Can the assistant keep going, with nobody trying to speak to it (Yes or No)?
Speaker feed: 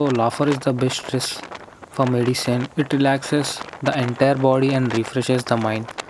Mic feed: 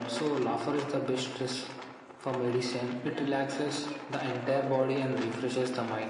No